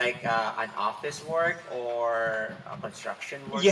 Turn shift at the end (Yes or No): Yes